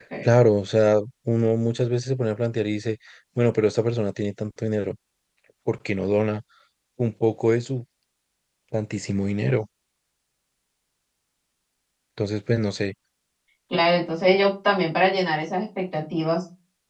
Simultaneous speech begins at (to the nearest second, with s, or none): none